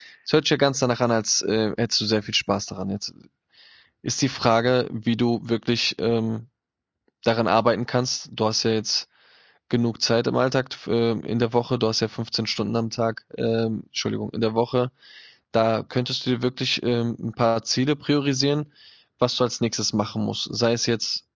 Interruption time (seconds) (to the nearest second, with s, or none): none